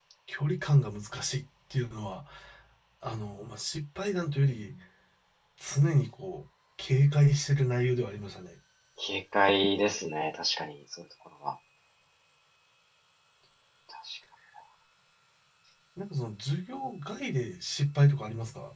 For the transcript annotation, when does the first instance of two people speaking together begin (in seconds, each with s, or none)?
none